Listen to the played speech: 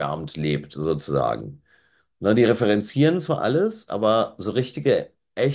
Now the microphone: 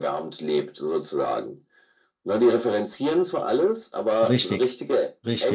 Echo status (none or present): present